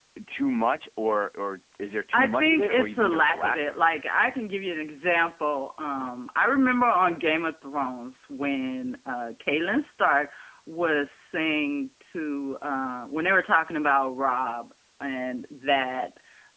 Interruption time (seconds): 2.1 s

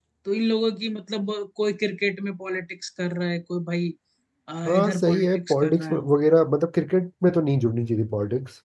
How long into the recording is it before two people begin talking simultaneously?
4.7 s

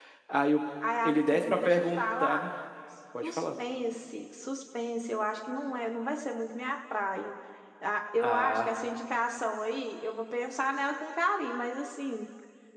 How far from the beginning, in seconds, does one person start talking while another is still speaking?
1.0 s

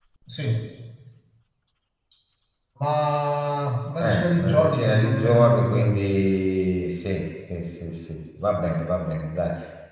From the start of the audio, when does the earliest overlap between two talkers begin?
4.0 s

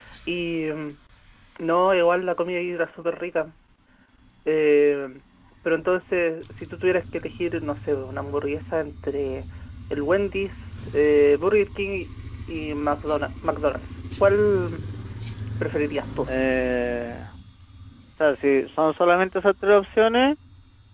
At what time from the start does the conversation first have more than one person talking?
none

